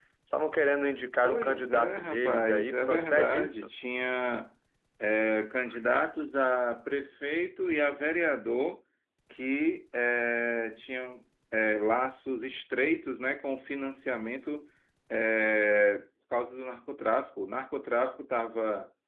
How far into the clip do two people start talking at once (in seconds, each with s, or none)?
1.2 s